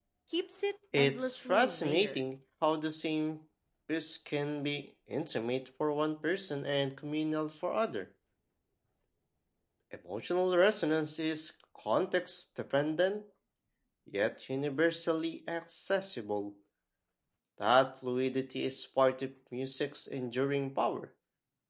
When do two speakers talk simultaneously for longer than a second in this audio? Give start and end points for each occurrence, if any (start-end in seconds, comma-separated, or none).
1.0-2.2